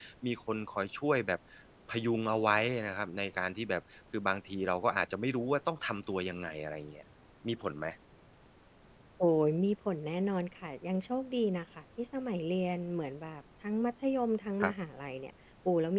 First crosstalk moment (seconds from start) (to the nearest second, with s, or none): none